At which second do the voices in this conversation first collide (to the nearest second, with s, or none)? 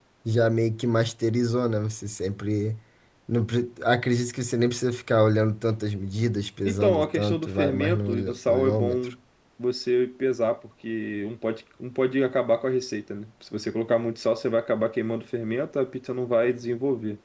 7 s